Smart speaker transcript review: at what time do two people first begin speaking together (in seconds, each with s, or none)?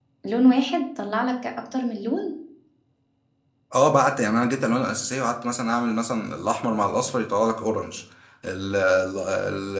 none